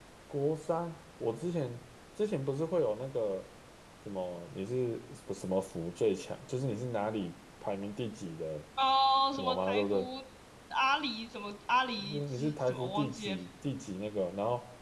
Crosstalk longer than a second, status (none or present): present